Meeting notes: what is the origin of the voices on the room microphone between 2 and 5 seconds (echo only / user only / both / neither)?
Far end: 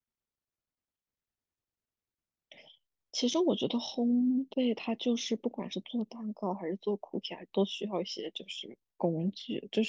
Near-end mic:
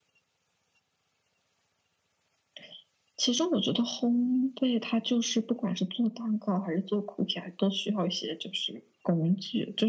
echo only